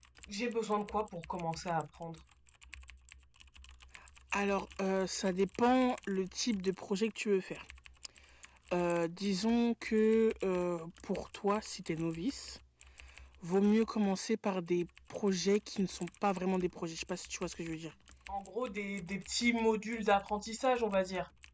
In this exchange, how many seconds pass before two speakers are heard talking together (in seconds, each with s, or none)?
none